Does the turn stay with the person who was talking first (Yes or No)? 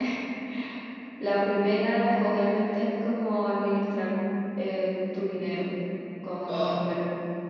Yes